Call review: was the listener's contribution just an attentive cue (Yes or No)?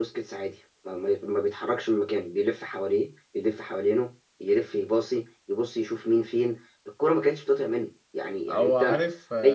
Yes